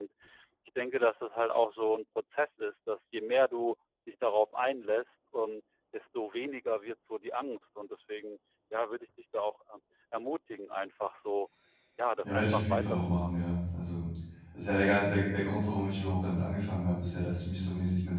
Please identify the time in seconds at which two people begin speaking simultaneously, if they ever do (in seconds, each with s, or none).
12.2 s